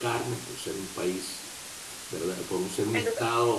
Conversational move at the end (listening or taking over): listening